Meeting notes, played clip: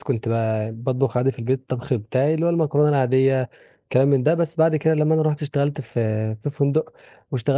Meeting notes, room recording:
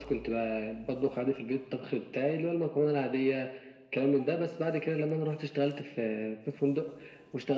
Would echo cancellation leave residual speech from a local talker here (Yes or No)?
No